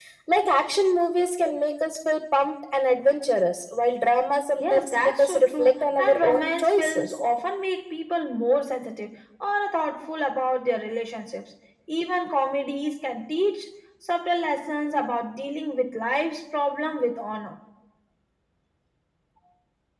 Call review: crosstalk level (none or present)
present